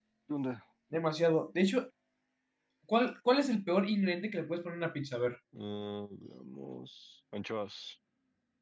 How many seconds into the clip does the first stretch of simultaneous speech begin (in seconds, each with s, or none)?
none